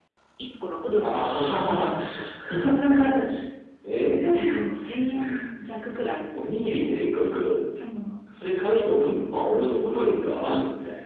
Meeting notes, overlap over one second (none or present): present